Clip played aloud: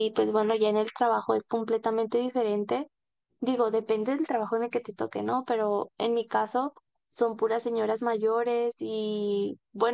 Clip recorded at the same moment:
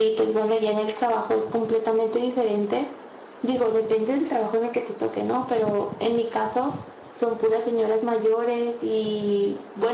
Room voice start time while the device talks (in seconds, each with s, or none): none